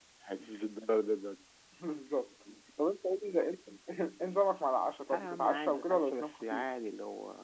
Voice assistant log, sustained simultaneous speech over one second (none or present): present